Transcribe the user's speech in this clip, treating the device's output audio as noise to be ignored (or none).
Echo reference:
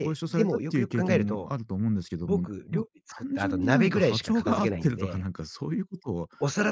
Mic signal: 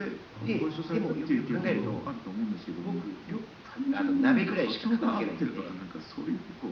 ああ、なるほど。う